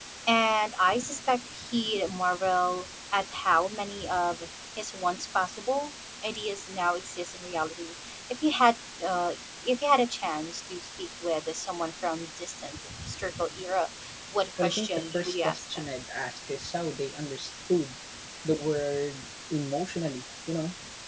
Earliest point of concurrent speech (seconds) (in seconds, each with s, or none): 14.6 s